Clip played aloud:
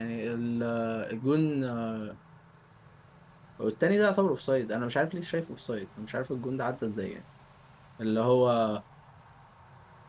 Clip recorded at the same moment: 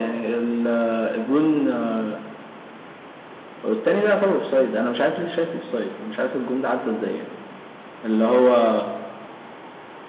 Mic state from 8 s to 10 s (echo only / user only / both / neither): echo only